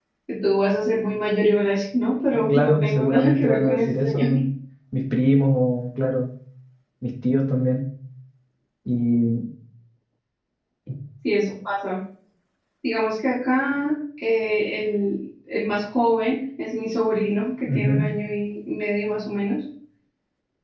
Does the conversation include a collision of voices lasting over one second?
Yes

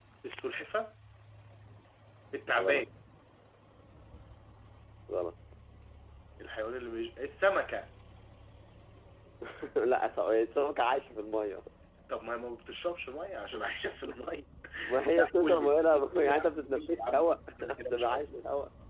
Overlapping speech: Yes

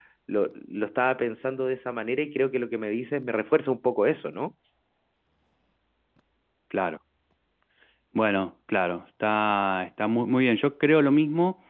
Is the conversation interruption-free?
Yes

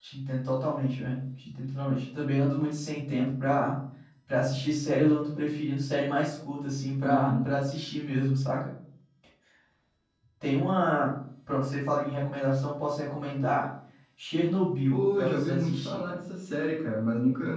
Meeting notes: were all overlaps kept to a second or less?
No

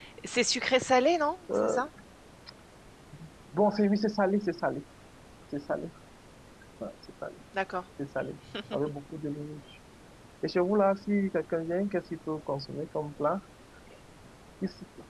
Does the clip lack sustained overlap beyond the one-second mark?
Yes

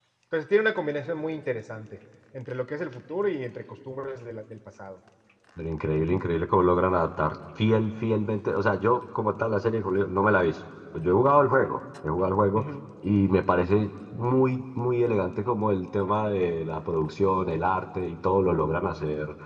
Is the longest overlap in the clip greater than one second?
No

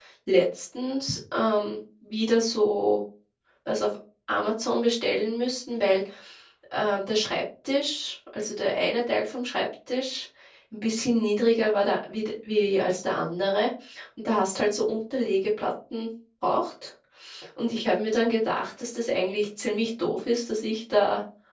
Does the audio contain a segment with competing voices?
No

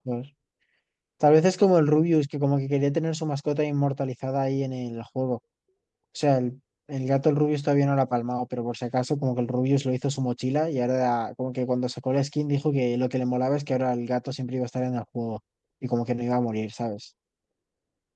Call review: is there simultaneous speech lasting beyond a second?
No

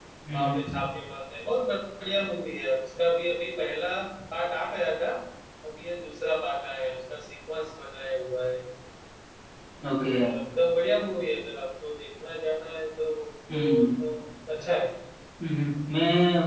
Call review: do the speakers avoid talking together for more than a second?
Yes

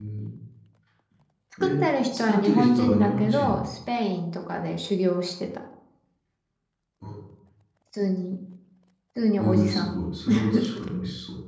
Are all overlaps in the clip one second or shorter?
No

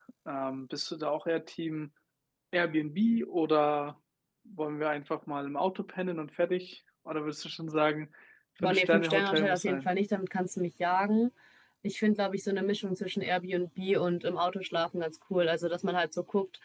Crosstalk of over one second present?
Yes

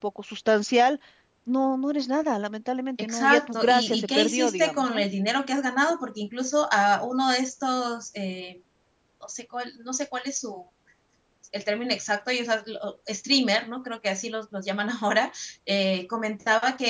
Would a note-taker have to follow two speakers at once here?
Yes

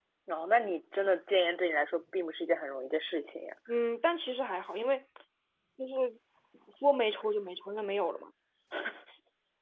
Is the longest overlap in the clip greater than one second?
No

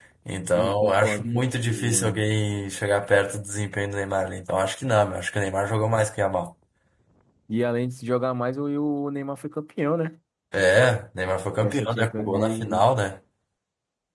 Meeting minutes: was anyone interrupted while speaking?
Yes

